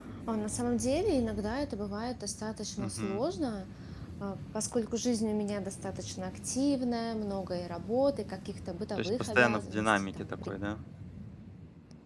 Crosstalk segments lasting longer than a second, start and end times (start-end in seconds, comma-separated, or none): 9.0-10.5